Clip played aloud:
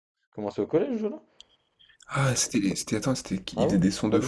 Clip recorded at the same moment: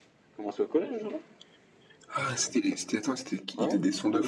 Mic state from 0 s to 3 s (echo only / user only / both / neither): echo only